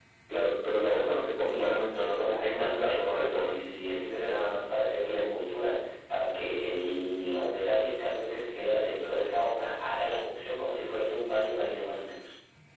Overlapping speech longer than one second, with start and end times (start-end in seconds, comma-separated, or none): 1.5-3.5